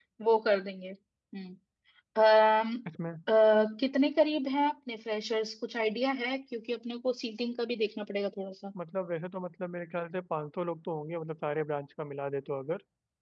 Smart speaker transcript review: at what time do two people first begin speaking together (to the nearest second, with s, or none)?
none